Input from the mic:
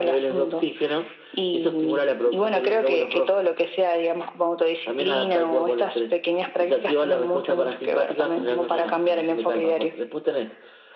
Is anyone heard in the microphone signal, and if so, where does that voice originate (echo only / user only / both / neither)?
echo only